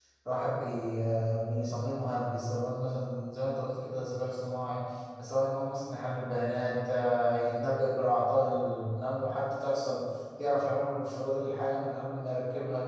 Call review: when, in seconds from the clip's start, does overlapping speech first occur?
none

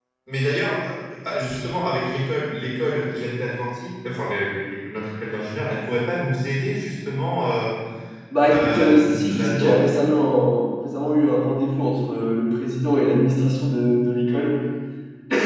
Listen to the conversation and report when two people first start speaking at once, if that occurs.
9 s

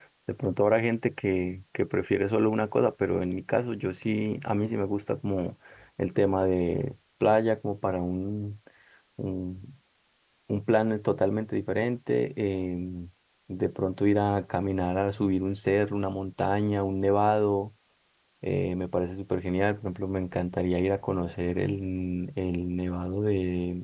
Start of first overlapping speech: none

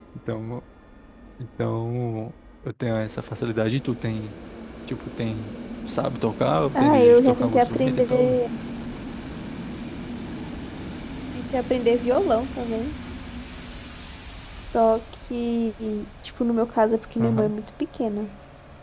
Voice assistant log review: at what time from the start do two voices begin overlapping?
7 s

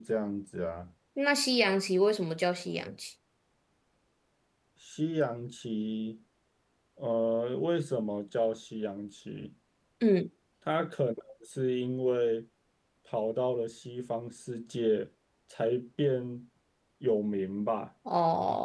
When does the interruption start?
none

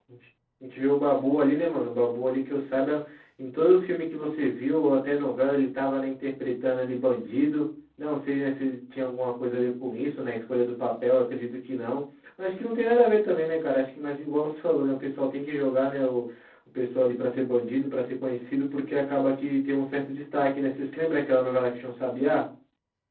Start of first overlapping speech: none

